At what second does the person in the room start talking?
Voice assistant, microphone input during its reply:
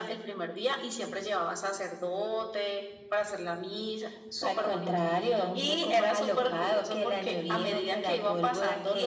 none

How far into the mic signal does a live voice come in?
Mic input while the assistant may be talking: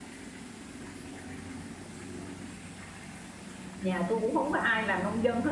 4 s

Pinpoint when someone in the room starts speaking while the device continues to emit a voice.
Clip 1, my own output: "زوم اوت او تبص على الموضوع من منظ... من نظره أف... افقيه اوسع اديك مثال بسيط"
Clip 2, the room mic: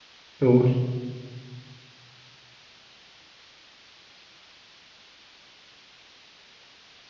0 s

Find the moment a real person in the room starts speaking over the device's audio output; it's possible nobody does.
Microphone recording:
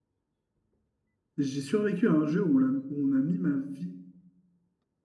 1 s

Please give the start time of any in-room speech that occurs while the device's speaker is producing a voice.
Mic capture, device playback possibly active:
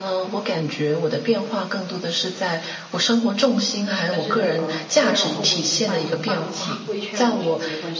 4 s

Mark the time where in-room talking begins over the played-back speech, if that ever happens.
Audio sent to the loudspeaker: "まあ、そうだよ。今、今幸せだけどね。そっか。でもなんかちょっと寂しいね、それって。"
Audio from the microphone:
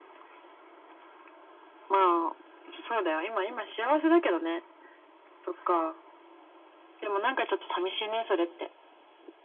none

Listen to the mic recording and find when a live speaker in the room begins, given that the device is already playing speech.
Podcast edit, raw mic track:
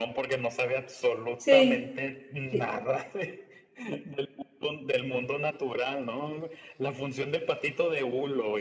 1 s

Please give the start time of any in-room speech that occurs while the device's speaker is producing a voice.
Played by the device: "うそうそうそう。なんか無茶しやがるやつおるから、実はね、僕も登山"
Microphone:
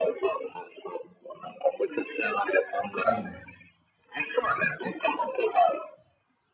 3 s

